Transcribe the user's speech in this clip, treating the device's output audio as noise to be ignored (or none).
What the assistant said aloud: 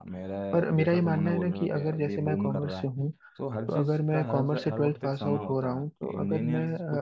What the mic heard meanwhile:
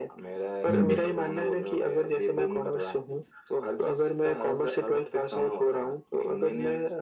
हम्म